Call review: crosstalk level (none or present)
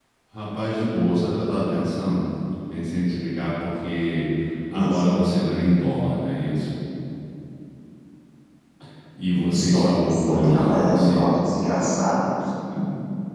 present